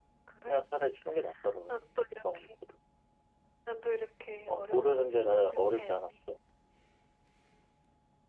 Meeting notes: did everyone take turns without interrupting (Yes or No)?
No